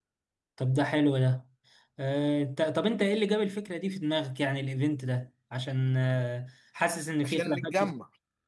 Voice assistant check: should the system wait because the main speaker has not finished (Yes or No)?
No